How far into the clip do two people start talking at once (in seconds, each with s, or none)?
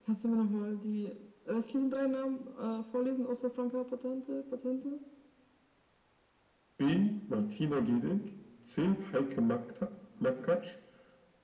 none